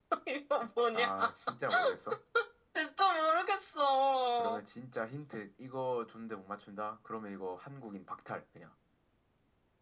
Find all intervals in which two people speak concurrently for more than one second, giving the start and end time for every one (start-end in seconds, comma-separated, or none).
none